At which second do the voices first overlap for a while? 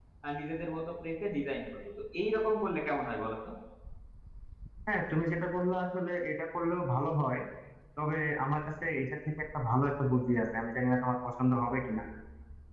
none

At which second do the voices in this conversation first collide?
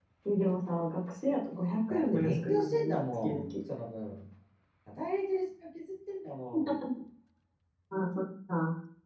1.9 s

